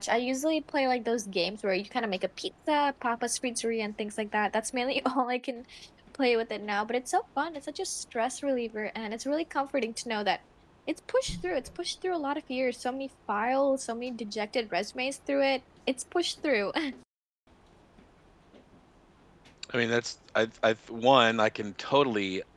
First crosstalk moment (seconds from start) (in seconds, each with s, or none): none